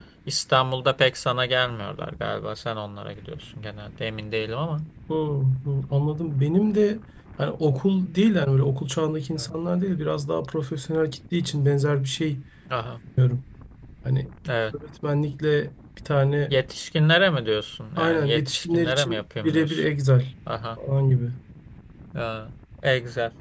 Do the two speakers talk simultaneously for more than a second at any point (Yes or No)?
Yes